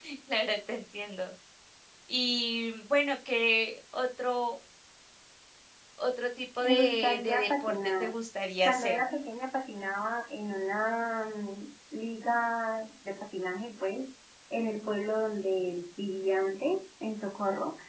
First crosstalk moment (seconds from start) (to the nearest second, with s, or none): 7 s